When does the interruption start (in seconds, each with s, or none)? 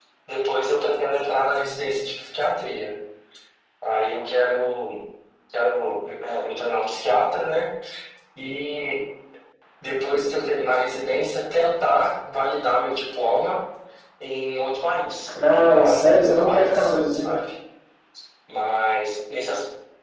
15.3 s